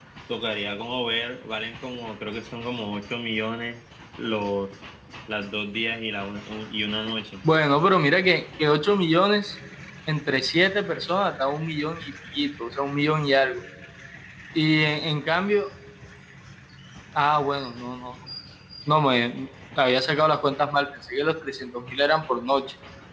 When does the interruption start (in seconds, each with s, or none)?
none